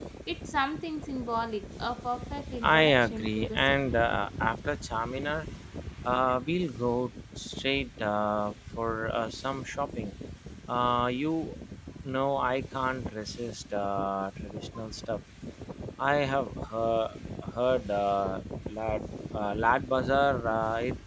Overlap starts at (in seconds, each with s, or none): 2.6 s